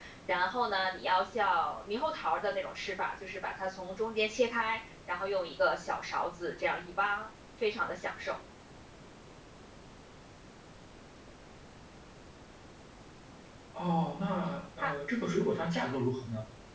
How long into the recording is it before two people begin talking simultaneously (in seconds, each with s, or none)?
none